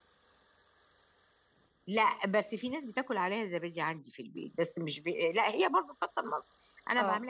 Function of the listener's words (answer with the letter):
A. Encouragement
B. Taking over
A